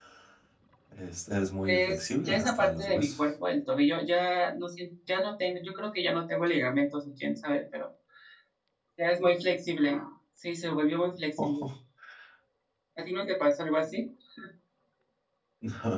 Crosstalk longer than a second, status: present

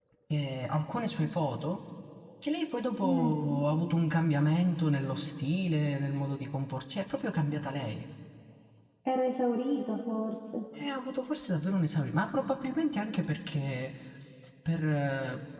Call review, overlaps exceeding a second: none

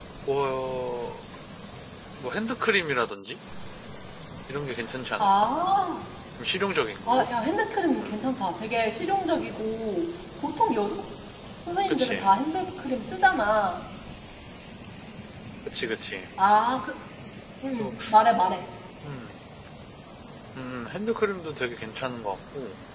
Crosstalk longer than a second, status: none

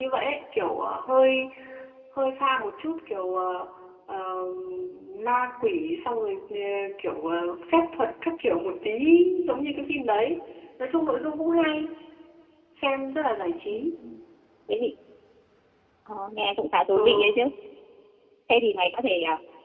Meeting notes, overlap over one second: none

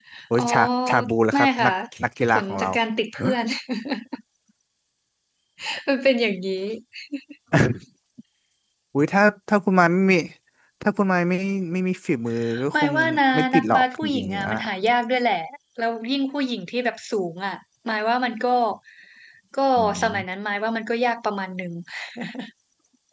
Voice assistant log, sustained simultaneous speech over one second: present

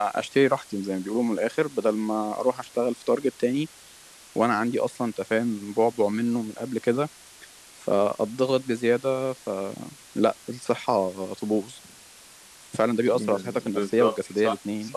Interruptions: present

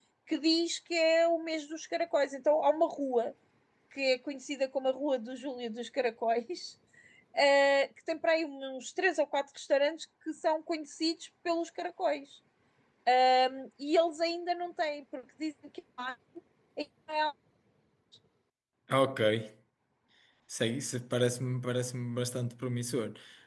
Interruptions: none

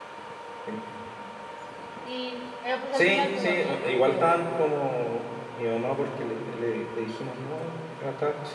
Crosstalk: present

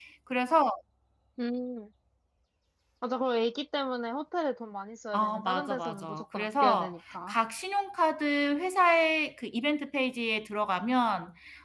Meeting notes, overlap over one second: present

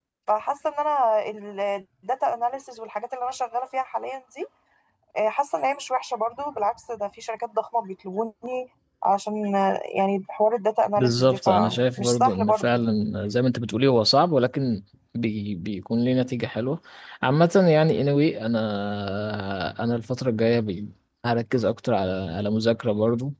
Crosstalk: present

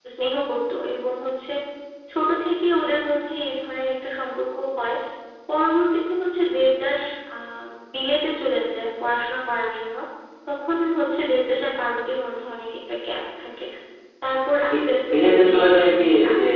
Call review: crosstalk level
present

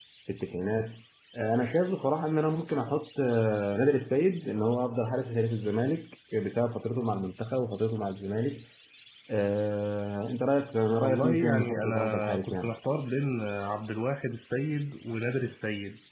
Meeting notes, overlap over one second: present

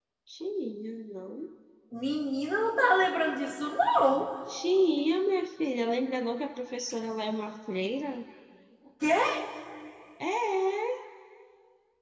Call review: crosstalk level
none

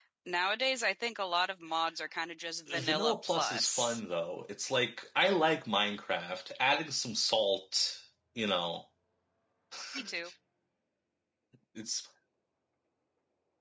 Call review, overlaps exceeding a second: present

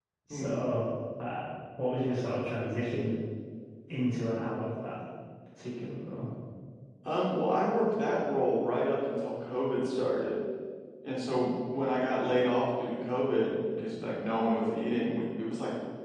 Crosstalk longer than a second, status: none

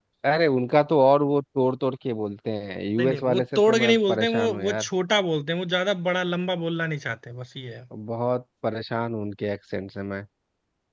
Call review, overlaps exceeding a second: present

